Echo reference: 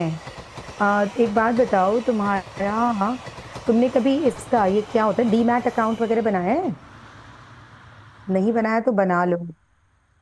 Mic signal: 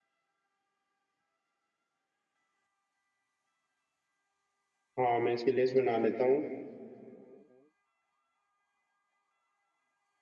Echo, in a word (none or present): none